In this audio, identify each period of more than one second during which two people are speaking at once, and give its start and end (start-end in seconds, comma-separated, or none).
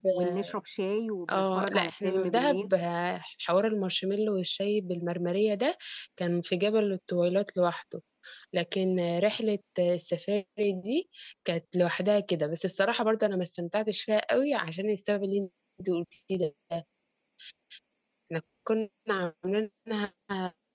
1.3-2.7